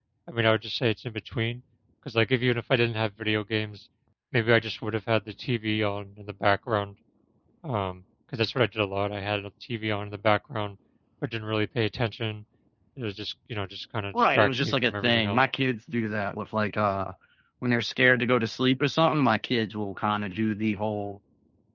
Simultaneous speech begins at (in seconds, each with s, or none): 14.1 s